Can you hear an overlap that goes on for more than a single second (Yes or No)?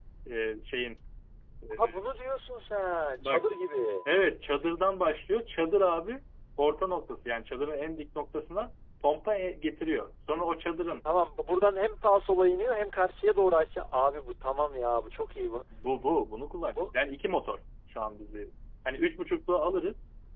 No